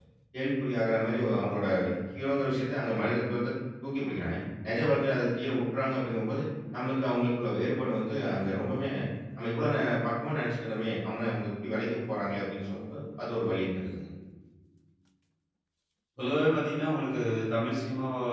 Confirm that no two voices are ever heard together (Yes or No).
Yes